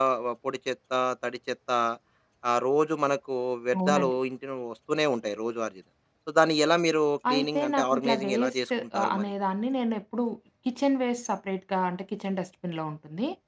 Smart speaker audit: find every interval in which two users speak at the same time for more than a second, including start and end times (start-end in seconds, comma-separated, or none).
7.3-9.3